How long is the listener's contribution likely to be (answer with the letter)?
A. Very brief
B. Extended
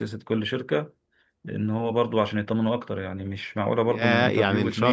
B